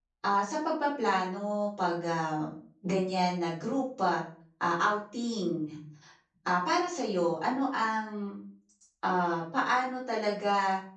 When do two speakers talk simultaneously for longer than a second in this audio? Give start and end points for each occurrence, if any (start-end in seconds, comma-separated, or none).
none